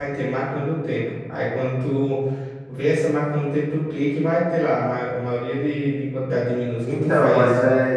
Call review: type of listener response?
taking over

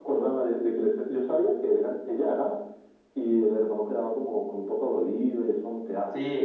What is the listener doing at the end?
taking over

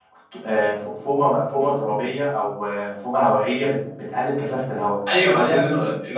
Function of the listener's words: taking over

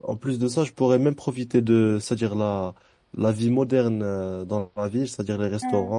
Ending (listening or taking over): listening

